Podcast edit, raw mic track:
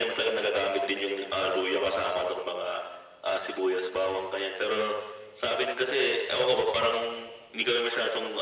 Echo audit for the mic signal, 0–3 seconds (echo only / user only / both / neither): echo only